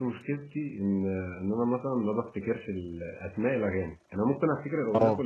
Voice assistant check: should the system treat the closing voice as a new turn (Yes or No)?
No